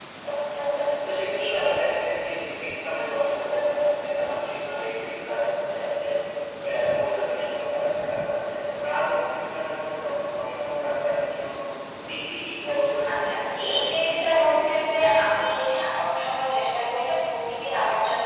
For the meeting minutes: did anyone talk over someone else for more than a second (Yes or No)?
Yes